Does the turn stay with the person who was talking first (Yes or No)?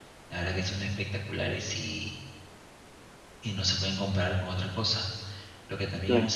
Yes